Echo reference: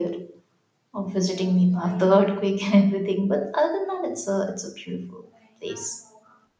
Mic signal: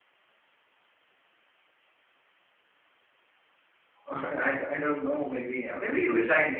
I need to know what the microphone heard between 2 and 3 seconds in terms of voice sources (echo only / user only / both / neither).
neither